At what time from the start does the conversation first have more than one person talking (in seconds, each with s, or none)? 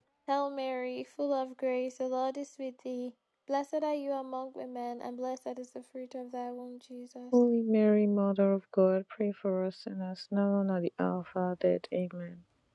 none